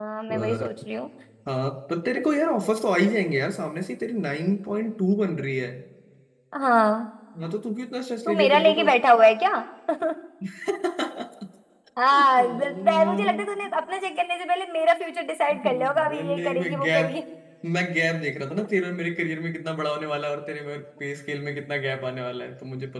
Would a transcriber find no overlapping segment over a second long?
No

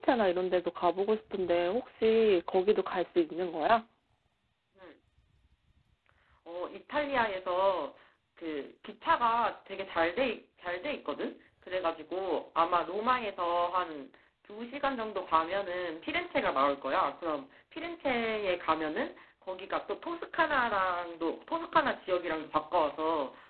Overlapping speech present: No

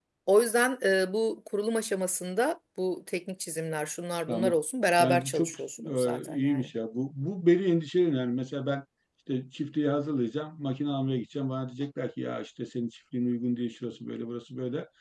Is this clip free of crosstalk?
No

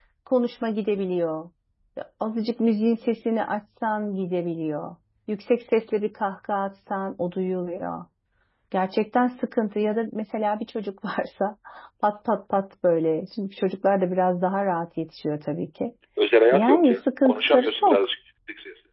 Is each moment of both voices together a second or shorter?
No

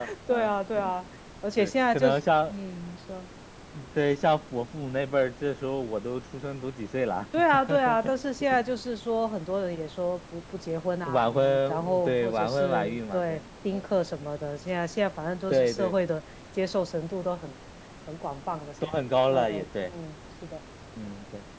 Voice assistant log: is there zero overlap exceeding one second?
No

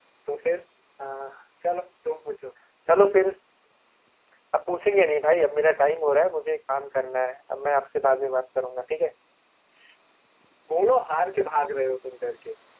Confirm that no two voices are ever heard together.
Yes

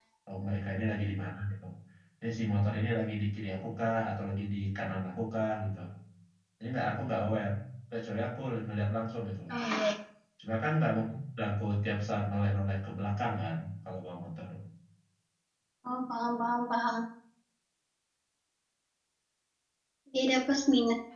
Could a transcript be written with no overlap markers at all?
Yes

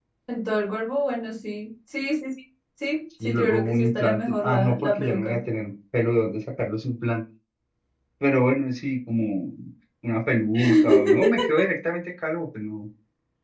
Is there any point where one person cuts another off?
Yes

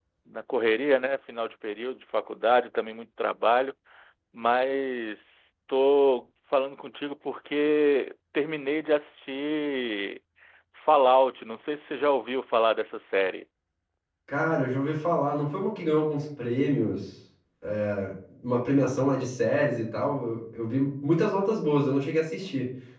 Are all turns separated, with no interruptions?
Yes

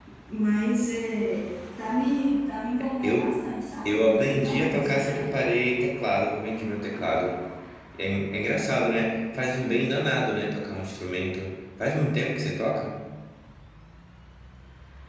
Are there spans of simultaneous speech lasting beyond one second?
Yes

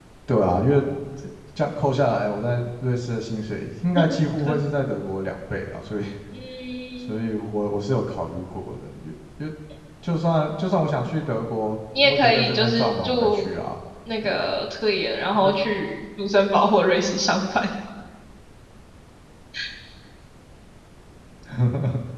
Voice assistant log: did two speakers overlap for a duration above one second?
Yes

